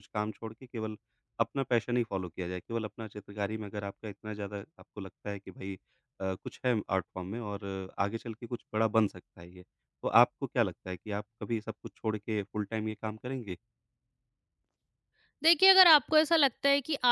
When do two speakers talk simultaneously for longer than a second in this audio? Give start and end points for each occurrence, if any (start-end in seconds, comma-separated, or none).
none